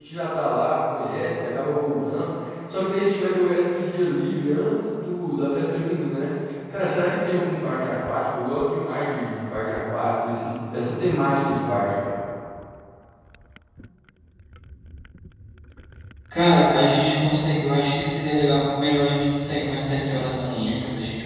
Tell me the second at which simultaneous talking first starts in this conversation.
none

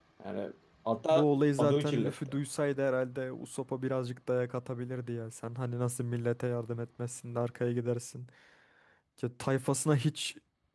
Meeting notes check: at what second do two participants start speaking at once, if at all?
1 s

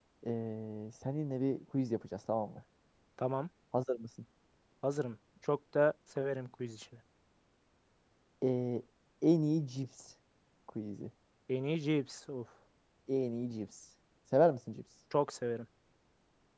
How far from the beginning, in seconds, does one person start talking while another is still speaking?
none

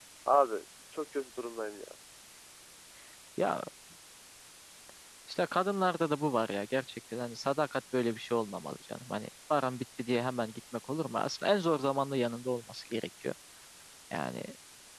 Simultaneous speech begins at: none

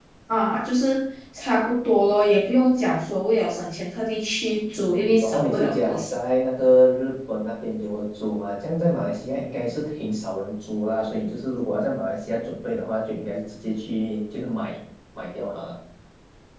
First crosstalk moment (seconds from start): 5 s

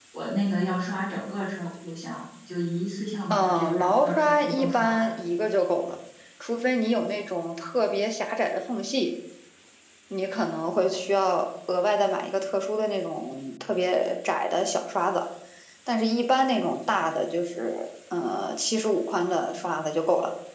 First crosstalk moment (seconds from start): 3 s

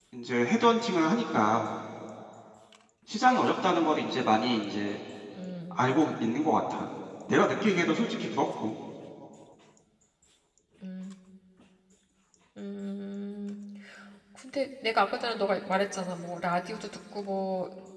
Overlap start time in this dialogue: none

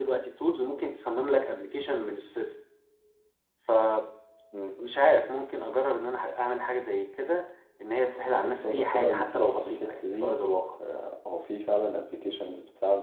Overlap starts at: 8 s

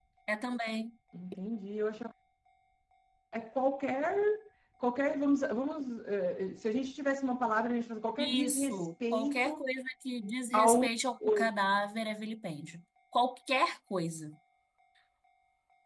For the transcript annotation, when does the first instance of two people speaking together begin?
8 s

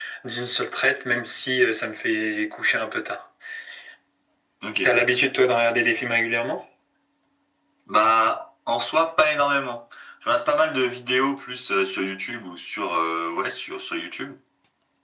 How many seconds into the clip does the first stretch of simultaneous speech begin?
none

